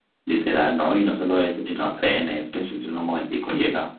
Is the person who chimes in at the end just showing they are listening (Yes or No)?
Yes